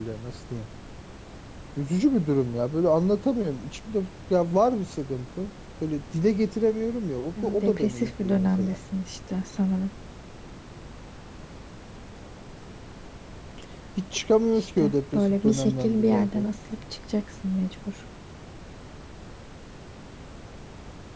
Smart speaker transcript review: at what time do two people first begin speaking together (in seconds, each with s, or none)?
7.4 s